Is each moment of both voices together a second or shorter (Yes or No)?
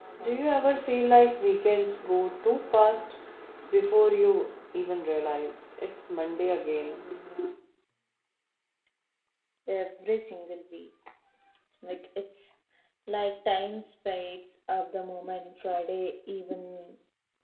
Yes